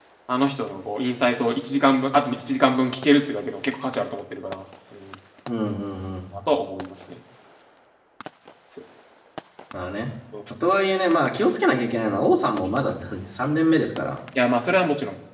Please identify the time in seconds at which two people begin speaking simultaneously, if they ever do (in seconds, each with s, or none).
none